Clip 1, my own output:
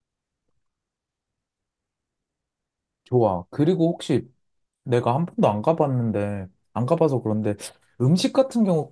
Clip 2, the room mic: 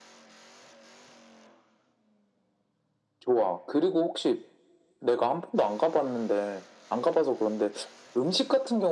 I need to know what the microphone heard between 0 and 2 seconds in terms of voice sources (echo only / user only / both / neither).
neither